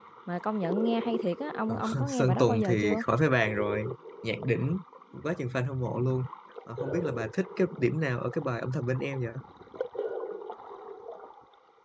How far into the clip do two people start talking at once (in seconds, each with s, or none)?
1.7 s